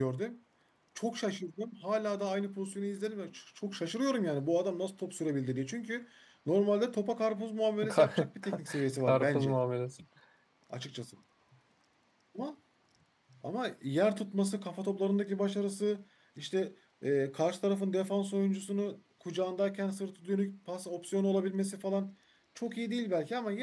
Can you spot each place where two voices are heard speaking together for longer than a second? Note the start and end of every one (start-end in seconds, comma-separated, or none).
7.9-9.6